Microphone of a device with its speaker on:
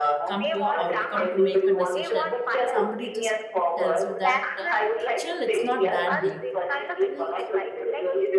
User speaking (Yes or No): Yes